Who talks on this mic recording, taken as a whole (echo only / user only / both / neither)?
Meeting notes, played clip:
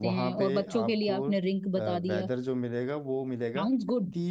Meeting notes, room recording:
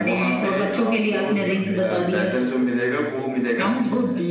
both